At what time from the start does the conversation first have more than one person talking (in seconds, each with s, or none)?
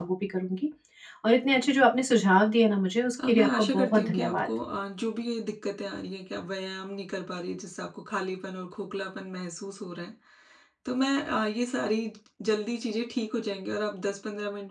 3.2 s